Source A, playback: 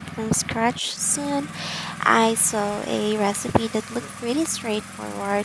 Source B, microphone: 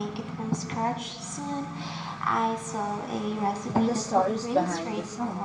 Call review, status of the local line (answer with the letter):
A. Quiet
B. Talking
B